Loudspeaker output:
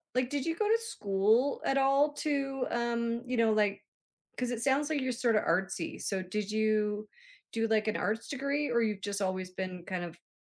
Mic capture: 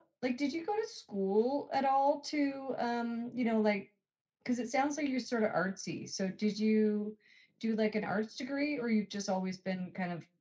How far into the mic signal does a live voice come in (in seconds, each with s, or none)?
none